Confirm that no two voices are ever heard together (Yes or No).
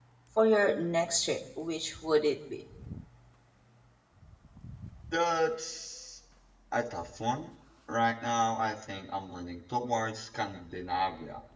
Yes